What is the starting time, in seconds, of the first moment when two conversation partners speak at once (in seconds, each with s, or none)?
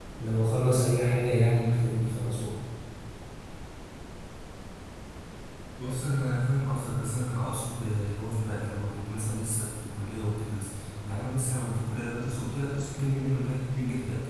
none